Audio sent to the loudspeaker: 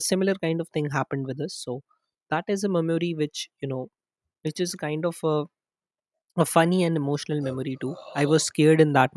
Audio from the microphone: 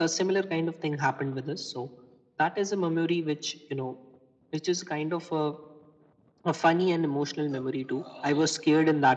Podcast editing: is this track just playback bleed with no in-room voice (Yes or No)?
Yes